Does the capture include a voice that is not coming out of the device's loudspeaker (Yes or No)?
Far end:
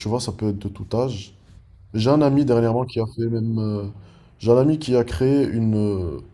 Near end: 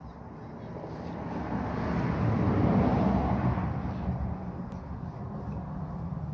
No